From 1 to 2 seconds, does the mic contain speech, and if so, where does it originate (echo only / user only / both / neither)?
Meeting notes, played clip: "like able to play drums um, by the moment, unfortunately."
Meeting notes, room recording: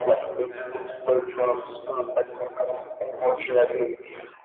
both